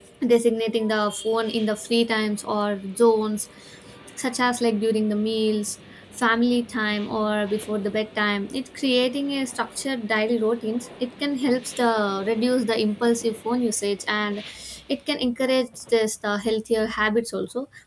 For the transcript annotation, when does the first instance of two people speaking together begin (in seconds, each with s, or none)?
none